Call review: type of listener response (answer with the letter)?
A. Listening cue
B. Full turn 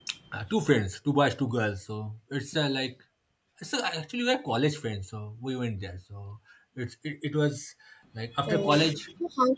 B